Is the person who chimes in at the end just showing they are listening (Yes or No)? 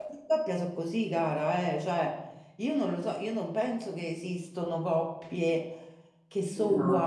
Yes